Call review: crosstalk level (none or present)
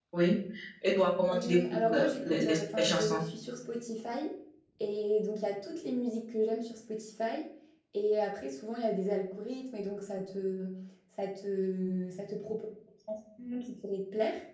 present